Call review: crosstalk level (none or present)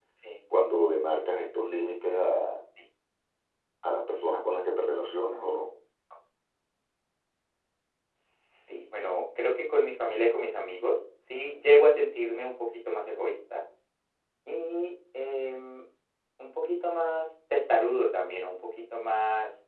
none